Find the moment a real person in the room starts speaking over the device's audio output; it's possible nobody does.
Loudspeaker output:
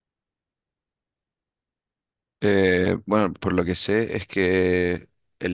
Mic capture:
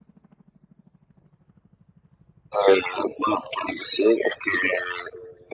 none

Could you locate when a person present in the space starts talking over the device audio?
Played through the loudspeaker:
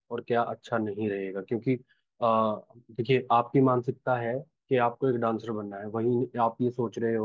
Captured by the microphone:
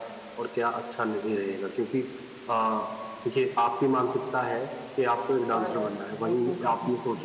5.5 s

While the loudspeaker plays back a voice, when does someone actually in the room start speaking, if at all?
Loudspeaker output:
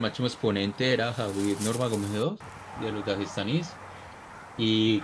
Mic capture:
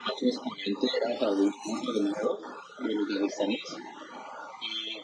none

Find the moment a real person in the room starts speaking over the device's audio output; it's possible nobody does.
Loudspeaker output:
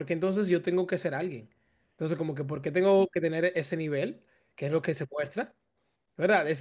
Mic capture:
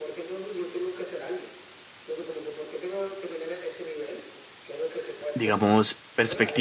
5.3 s

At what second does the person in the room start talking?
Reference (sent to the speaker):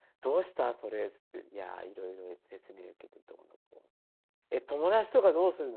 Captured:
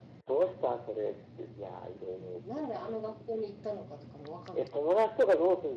2.1 s

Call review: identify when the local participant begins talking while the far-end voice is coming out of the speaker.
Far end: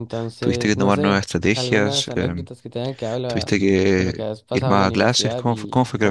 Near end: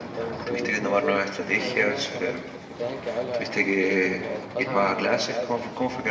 none

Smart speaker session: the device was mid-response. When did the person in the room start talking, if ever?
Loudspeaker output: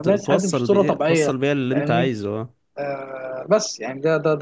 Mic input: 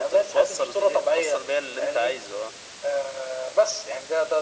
none

